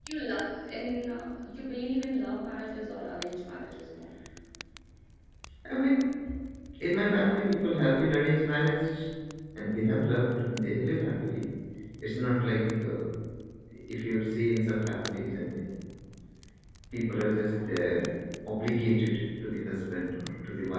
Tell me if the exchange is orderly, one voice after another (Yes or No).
Yes